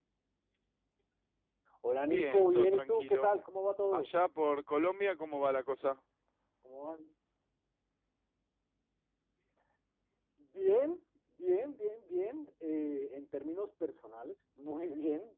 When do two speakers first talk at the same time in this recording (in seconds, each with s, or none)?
2.1 s